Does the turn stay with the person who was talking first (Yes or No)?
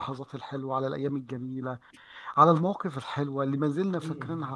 Yes